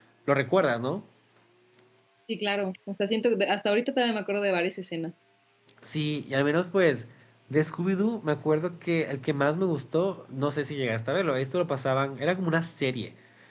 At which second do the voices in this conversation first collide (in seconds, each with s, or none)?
none